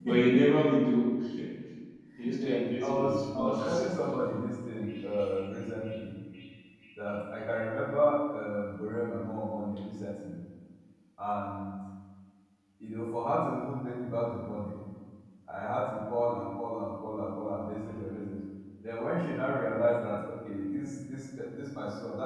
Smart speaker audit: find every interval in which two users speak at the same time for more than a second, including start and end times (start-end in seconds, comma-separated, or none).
2.4-3.9